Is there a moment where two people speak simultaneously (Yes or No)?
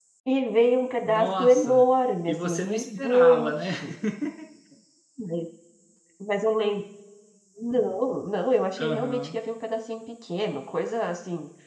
Yes